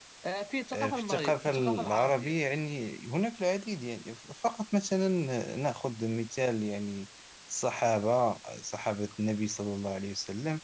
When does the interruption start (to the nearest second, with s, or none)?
1 s